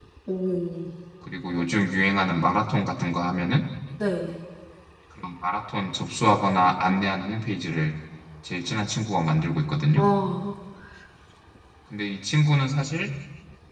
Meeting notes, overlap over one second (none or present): none